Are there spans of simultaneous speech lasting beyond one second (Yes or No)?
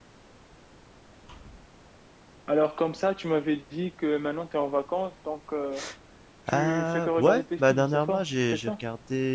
Yes